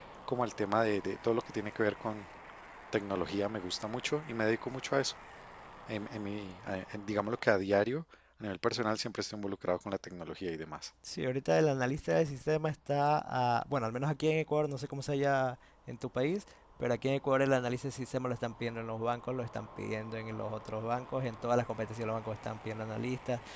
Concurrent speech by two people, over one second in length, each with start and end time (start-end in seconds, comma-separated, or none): none